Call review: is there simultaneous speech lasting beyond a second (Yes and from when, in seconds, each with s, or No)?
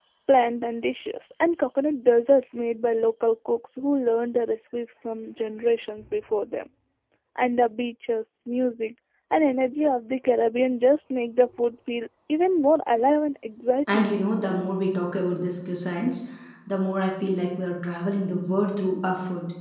No